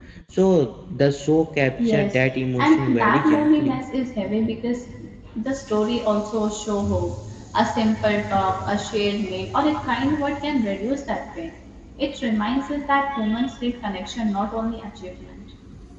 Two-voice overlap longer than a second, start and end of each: 2.6-3.8

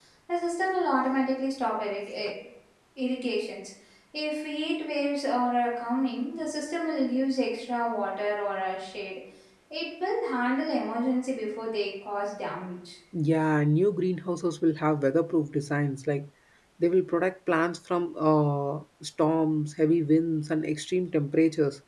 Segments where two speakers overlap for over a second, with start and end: none

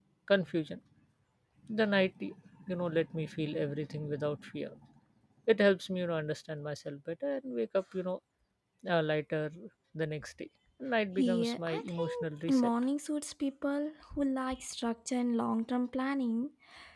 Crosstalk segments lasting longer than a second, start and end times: 11.2-12.7

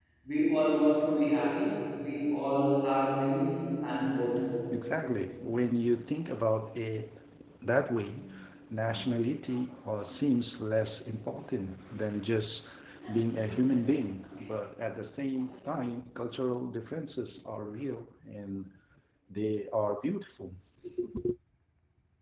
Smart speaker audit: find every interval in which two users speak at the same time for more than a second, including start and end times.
none

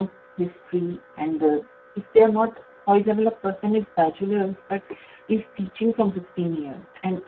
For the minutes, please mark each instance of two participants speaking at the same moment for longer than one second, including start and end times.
none

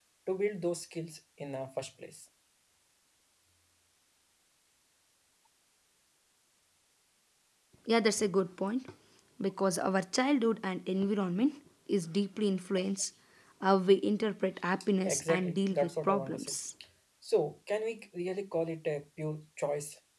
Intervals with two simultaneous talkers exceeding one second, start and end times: 15.0-16.6

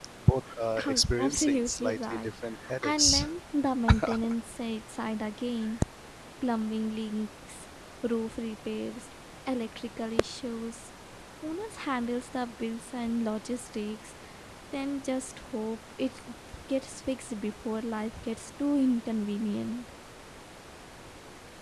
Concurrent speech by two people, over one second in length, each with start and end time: 0.9-2.3

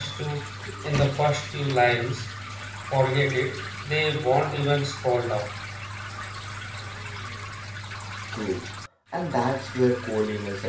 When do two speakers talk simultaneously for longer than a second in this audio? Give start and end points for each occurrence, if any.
none

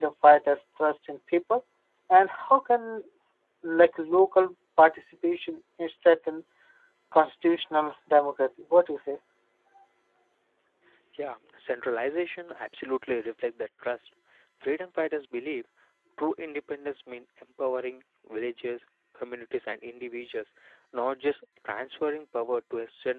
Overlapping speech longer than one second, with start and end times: none

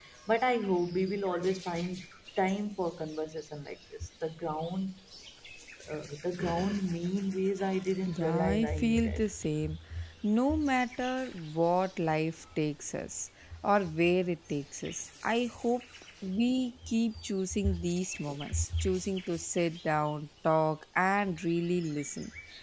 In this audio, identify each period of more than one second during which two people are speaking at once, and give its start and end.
8.1-9.3

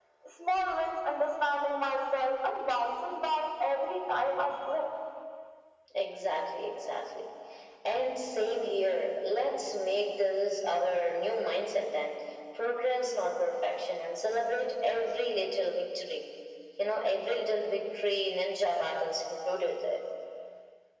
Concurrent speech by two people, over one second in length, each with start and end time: none

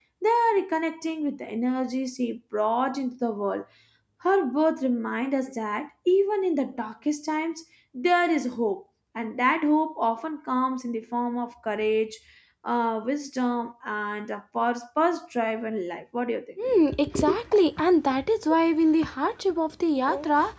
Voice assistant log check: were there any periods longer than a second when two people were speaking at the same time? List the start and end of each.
none

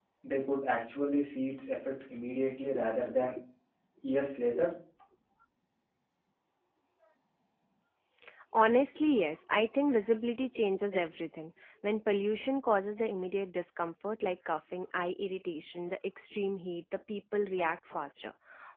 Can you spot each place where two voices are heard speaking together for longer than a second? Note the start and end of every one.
none

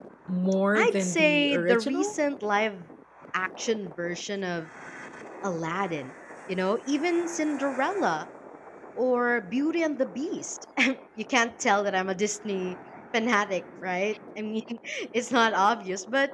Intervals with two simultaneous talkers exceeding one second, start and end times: 0.7-2.1

